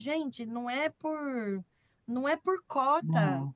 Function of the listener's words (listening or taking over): listening